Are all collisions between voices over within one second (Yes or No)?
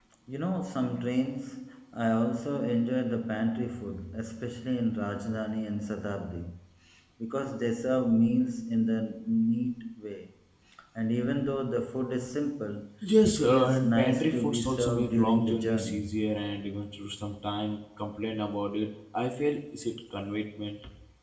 No